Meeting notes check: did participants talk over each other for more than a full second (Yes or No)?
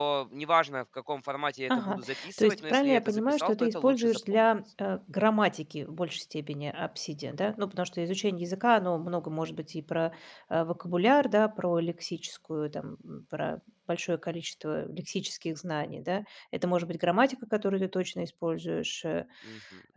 Yes